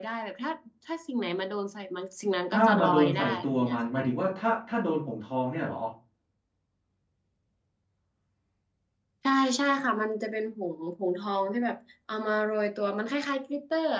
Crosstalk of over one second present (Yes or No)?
Yes